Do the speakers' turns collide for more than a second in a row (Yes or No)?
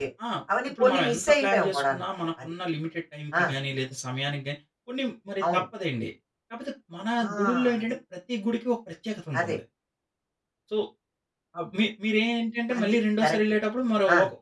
Yes